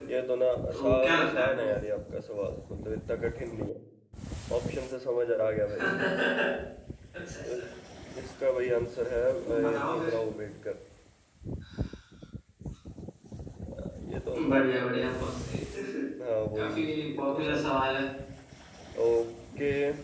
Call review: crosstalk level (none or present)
present